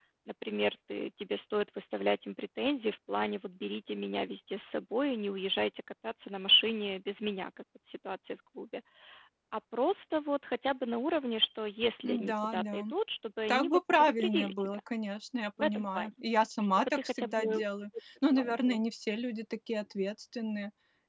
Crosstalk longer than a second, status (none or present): present